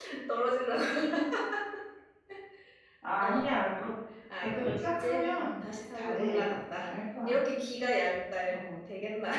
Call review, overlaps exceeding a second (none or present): present